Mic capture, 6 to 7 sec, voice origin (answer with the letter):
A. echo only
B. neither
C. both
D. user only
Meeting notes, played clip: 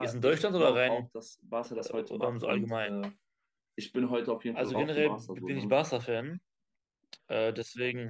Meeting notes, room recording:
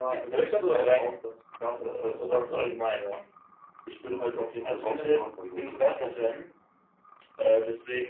A